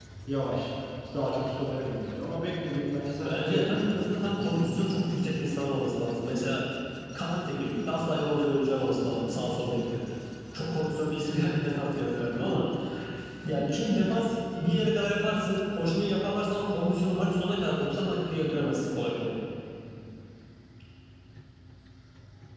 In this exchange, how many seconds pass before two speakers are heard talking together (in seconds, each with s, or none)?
3.2 s